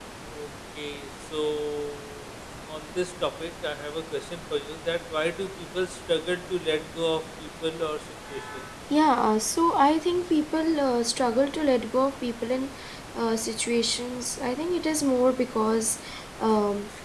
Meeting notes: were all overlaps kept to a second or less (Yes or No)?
Yes